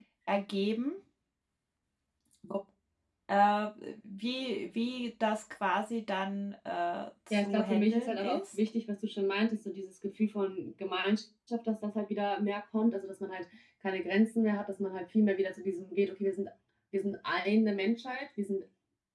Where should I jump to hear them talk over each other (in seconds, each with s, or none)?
7.3 s